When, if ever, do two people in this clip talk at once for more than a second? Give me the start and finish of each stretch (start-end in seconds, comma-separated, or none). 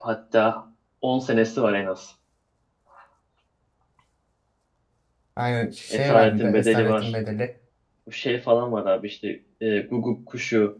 5.9-7.1